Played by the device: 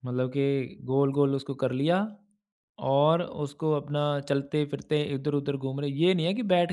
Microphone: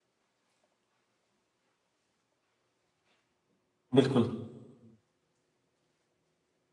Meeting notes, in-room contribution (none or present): present